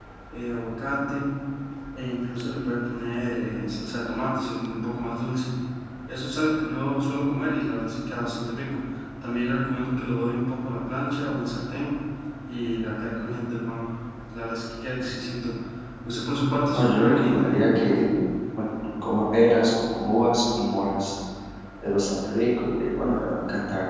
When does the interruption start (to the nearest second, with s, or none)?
17 s